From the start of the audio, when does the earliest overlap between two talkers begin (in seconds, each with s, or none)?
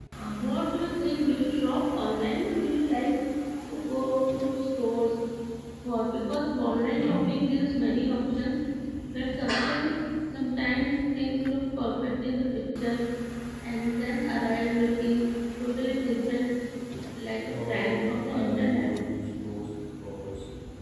17.4 s